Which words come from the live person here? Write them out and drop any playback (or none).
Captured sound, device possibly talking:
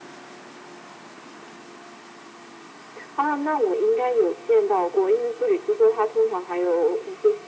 none